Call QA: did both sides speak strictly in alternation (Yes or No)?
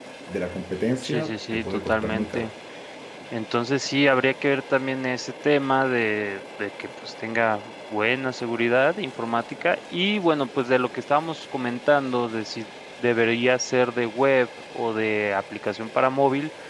No